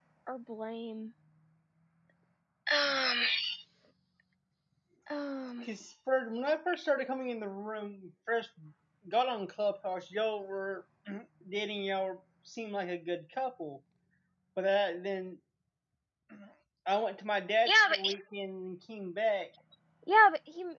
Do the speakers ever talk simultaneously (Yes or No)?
No